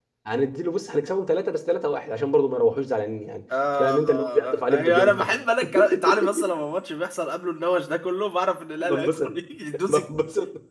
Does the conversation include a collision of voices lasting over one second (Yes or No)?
Yes